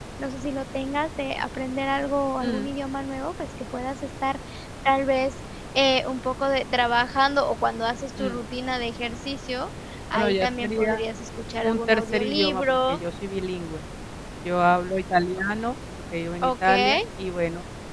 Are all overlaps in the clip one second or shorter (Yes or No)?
No